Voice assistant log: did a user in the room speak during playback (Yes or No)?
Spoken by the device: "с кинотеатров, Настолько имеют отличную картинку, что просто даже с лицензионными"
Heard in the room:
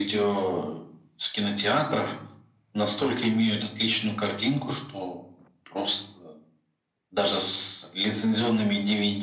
No